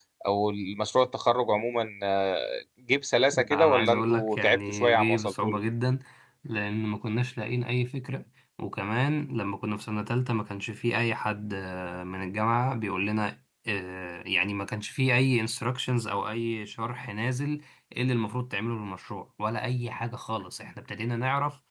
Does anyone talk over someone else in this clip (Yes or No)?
Yes